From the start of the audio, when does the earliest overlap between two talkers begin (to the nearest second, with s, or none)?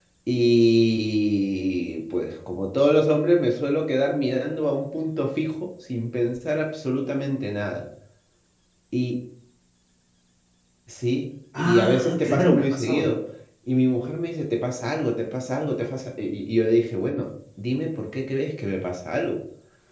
12 s